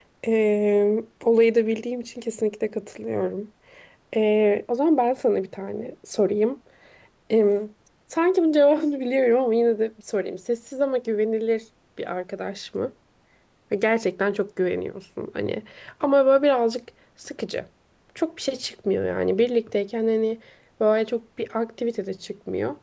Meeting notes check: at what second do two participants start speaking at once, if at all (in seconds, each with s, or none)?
none